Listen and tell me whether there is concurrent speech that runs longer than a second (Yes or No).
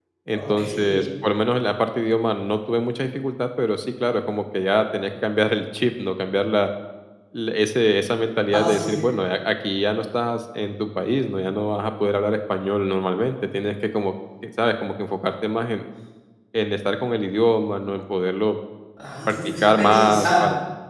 Yes